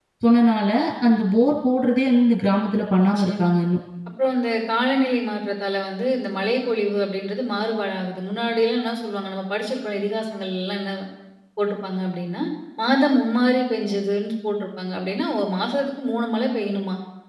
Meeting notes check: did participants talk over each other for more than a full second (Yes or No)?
No